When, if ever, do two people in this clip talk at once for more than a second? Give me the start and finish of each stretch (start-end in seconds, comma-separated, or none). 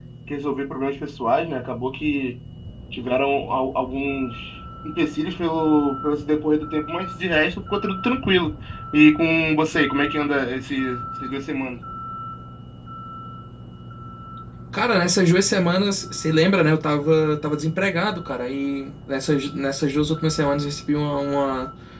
none